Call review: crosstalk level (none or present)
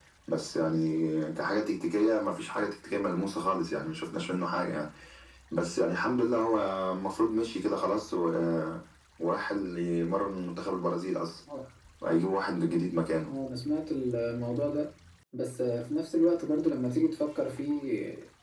none